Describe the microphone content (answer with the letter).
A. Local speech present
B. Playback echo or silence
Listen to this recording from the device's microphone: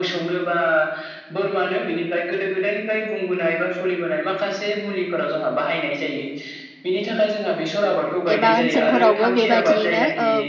A